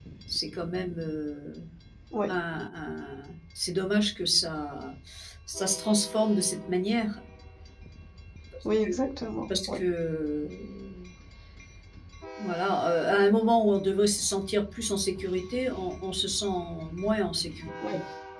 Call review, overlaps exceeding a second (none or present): none